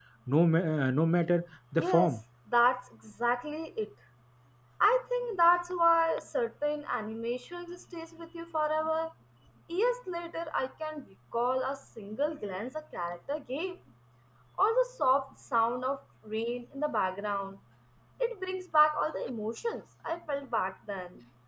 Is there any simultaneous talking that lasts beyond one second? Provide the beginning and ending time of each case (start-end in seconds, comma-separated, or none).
none